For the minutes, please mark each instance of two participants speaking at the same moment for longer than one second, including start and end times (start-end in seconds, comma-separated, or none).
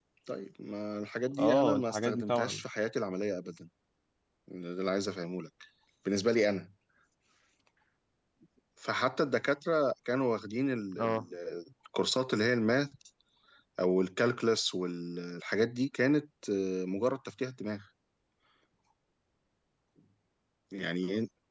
1.4-2.6